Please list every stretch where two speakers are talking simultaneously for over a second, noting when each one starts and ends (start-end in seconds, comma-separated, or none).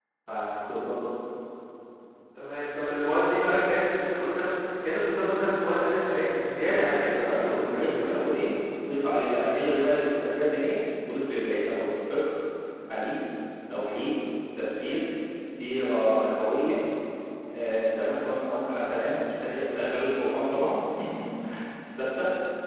6.7-8.2